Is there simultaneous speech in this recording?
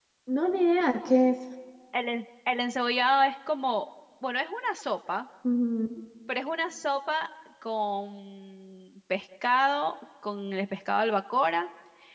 No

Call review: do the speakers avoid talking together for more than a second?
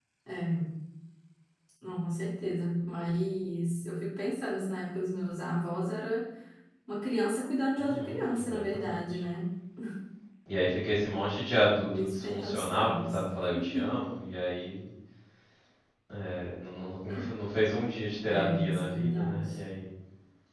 No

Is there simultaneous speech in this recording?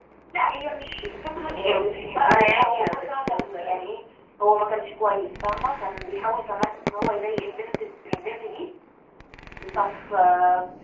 Yes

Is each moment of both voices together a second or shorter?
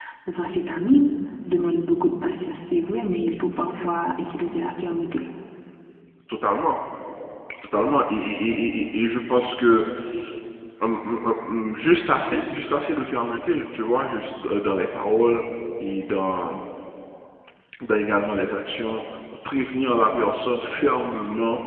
Yes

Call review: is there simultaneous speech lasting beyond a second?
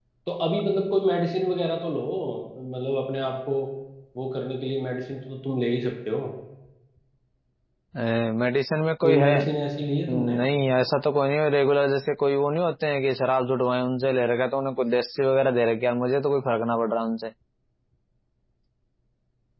No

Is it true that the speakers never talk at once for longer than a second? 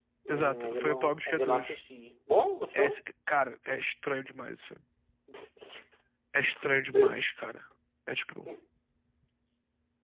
No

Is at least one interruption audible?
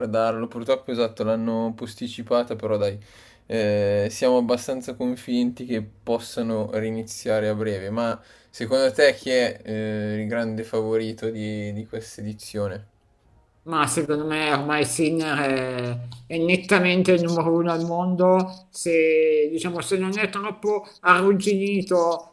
No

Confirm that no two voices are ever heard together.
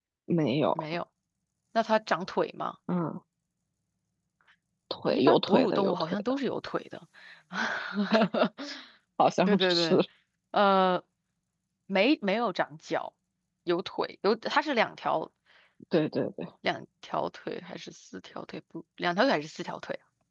No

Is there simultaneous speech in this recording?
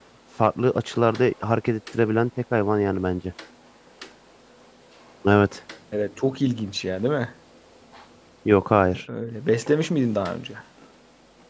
No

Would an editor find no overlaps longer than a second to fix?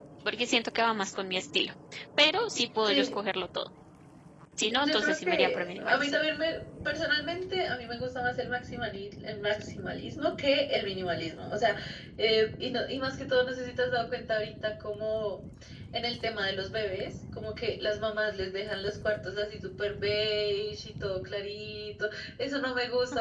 No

